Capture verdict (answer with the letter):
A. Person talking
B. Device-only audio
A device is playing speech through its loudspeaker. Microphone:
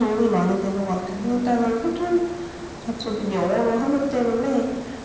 B